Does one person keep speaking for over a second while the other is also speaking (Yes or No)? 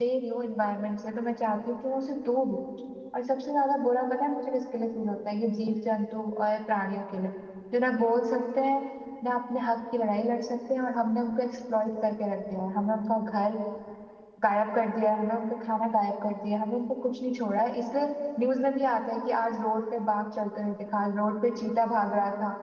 No